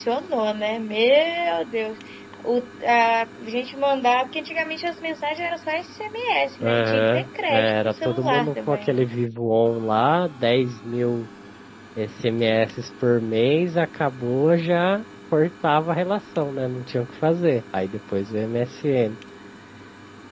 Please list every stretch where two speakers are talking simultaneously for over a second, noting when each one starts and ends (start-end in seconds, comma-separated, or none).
6.6-9.0